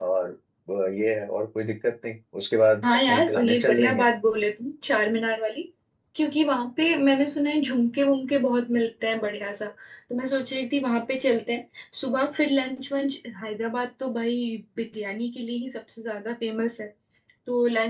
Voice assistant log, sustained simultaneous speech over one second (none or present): present